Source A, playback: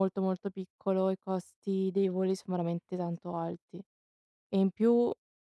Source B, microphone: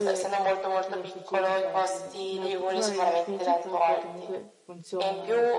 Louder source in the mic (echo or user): echo